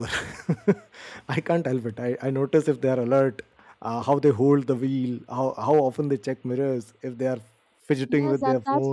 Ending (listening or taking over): taking over